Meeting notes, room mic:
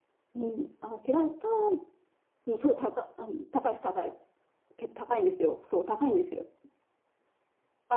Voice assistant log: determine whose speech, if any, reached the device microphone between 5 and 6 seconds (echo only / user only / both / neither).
echo only